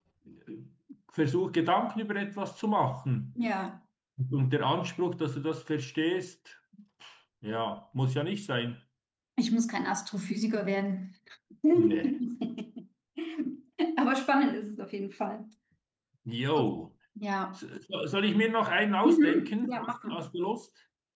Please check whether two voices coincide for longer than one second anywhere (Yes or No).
Yes